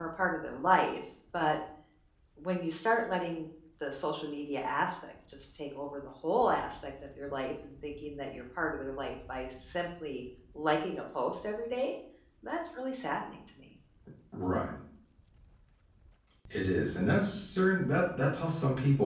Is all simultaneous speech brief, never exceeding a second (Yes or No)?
Yes